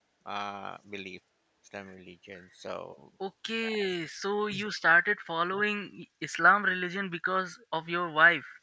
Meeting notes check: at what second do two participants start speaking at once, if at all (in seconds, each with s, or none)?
none